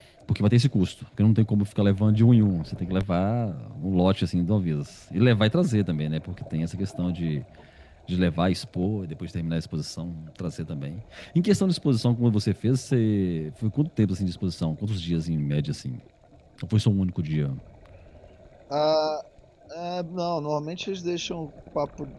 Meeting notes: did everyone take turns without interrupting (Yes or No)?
Yes